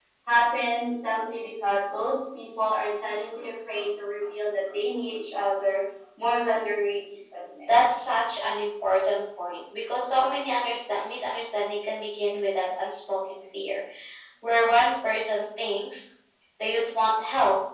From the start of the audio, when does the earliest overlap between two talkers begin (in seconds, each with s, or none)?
none